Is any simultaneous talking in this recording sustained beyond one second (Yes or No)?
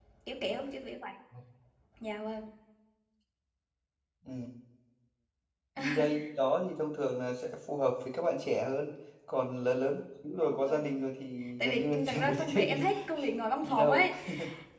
Yes